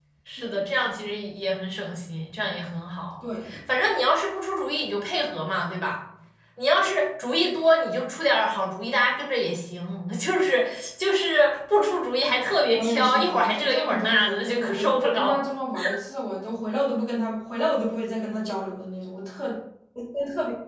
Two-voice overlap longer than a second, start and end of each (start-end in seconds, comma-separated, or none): 12.7-15.4